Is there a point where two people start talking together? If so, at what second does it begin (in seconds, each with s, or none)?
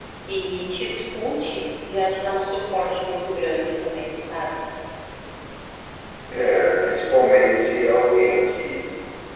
none